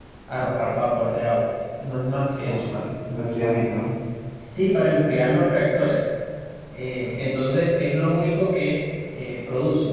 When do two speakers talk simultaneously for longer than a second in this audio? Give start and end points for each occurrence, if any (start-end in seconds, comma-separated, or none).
none